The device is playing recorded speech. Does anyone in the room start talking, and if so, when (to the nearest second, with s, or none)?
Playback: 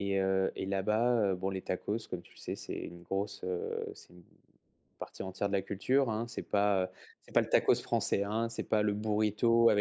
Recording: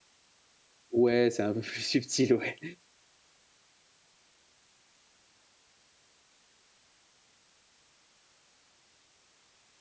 1 s